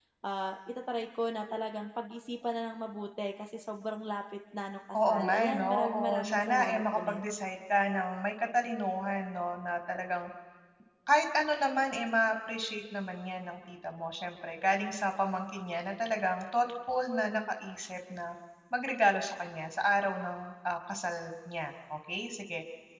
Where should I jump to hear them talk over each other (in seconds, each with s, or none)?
4.9 s